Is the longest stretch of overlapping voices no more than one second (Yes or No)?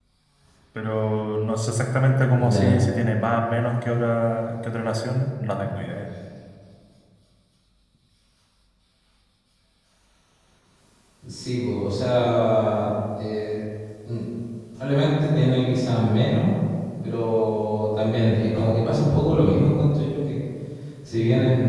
Yes